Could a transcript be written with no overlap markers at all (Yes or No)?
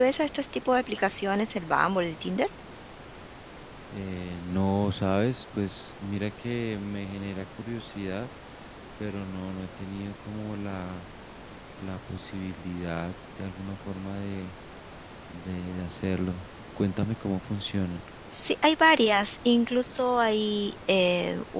Yes